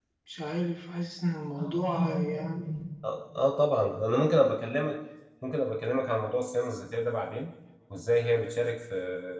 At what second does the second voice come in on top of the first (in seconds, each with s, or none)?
none